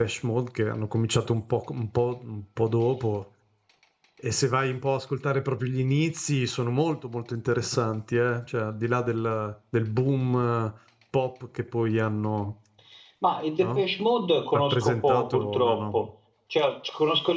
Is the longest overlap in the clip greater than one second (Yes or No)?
Yes